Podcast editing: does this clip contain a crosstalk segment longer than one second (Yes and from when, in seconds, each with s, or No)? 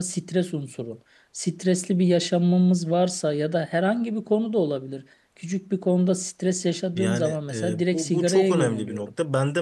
Yes, from 6.9 s